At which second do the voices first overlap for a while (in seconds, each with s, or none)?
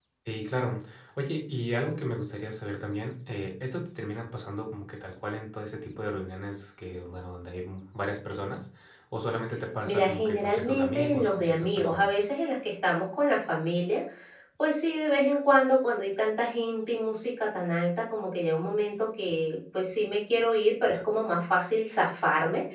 9.8 s